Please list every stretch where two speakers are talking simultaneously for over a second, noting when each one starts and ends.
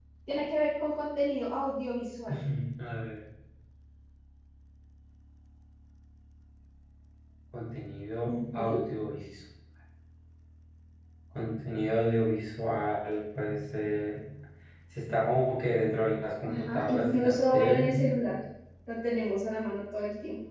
16.4-18.0

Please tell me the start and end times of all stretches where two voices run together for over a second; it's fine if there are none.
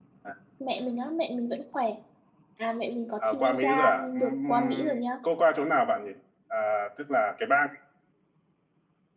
3.2-5.0

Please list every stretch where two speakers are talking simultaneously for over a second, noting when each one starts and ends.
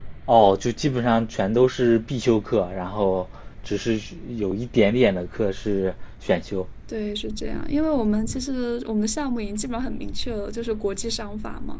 none

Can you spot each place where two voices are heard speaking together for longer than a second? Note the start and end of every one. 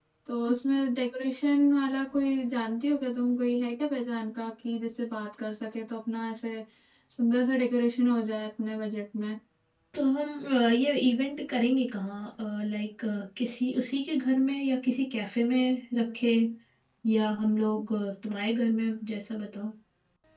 none

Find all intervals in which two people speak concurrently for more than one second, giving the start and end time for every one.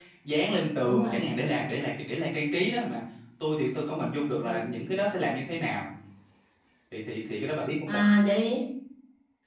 none

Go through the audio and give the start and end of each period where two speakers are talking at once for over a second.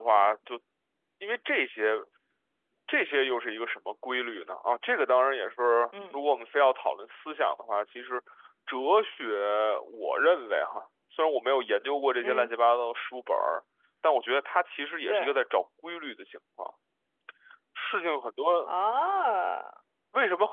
none

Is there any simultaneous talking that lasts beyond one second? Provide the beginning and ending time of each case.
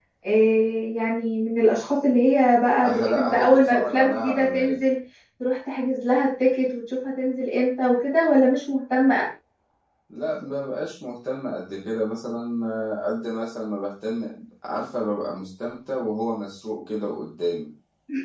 2.9-4.8

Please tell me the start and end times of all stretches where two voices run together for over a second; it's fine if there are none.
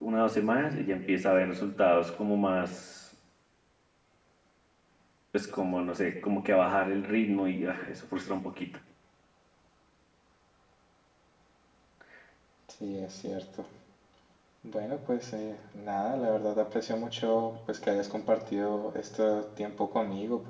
none

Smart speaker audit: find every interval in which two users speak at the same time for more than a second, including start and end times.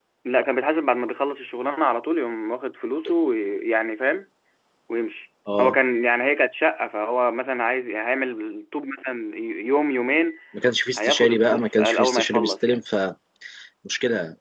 11.0-12.8

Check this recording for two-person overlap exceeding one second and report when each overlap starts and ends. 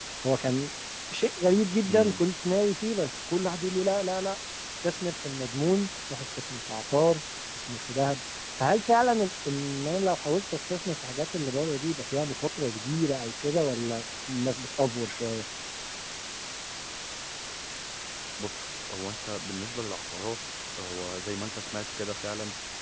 none

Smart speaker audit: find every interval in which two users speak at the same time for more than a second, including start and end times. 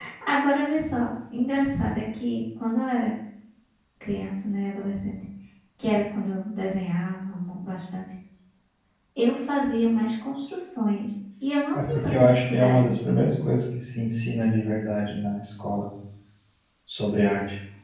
11.7-13.0

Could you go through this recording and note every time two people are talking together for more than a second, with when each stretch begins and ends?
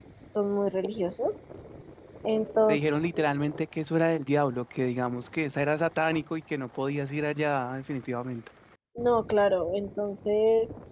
none

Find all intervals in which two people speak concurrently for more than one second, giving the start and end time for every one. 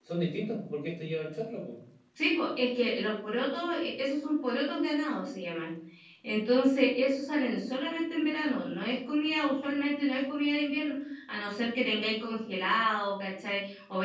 none

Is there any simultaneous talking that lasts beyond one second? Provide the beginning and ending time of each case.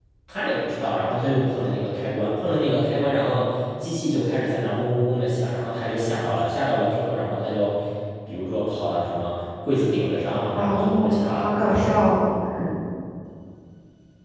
10.6-11.9

